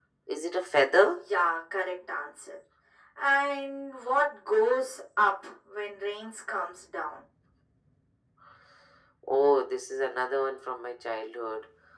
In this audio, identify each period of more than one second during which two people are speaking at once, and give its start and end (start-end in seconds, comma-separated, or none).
none